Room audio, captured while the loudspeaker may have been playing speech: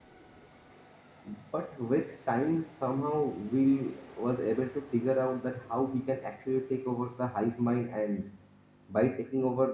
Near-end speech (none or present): present